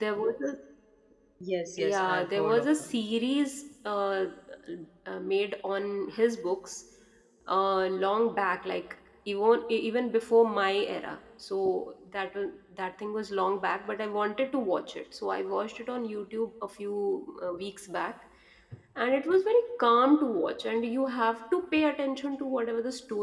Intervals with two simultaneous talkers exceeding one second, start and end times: 1.8-3.0

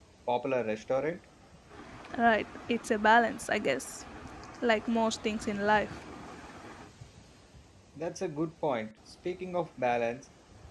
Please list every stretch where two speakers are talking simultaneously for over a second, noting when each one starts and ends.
none

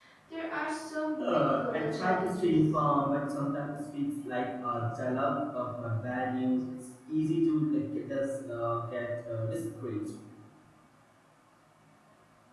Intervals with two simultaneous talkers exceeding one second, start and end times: 1.2-2.6

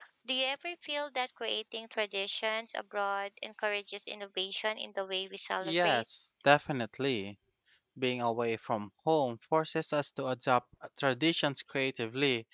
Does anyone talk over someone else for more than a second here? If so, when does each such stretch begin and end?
none

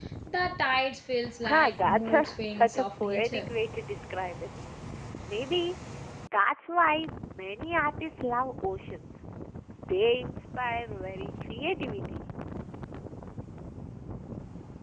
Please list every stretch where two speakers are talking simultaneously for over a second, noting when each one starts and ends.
1.4-3.5

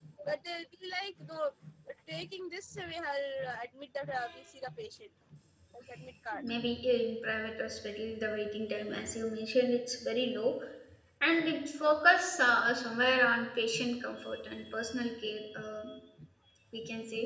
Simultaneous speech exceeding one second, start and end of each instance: none

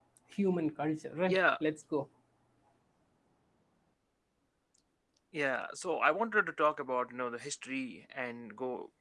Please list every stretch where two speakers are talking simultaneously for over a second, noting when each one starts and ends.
none

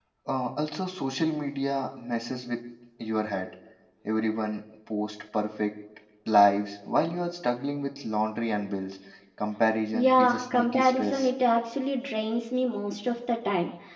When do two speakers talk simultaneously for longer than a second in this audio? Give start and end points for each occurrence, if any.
9.9-11.3

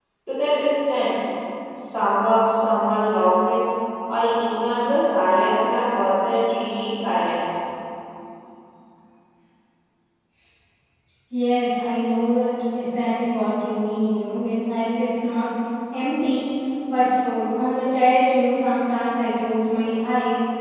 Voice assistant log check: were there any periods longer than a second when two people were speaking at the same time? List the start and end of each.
none

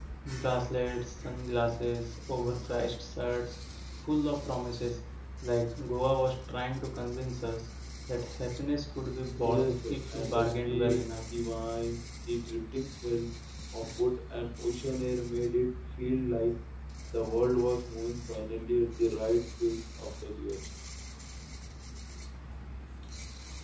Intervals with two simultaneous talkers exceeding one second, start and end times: 9.4-11.0

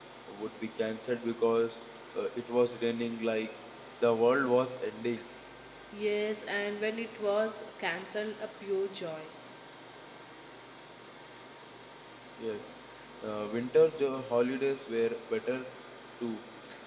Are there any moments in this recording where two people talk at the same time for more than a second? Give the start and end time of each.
none

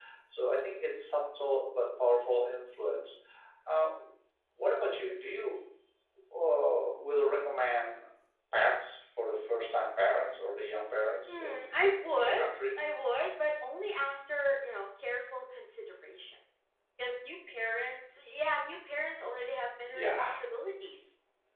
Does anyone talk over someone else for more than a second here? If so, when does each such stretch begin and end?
11.3-12.5

